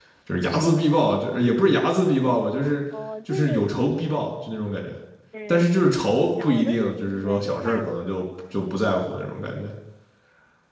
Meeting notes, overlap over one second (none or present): present